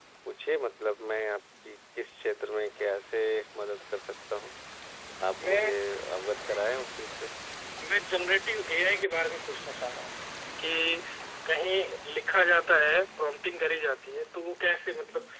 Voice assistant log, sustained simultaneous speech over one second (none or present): none